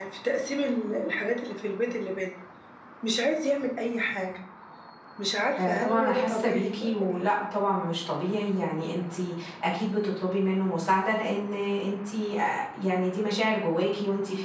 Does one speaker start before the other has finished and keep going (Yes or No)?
Yes